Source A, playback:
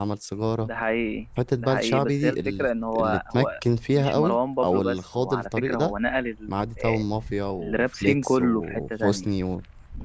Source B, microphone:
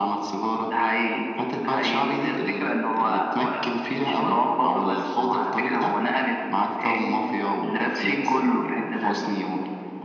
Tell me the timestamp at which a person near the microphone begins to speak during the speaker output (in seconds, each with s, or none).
6.7 s